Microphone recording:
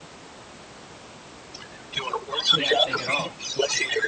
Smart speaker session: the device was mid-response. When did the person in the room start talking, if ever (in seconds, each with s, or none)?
2.4 s